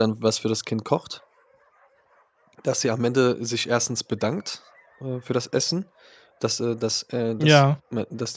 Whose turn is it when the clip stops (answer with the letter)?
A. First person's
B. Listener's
A